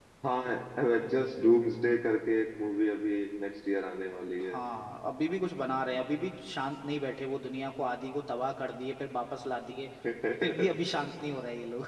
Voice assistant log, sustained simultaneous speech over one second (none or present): none